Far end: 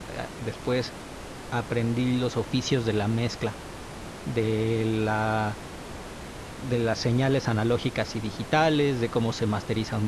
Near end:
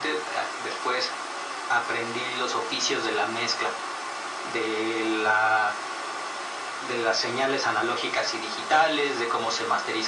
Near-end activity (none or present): none